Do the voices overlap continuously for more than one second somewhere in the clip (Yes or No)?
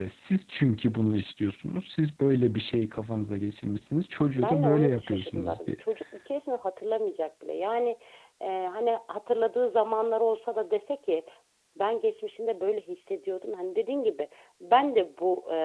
Yes